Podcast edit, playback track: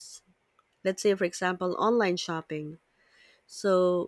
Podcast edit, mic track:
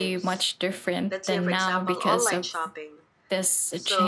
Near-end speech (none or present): present